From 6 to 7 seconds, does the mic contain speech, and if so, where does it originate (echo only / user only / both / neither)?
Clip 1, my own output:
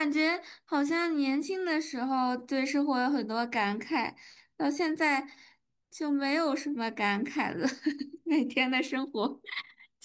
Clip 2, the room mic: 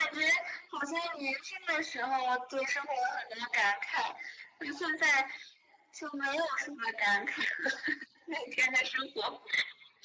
echo only